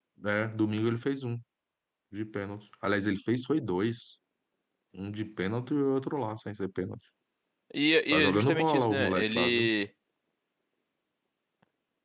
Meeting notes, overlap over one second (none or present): present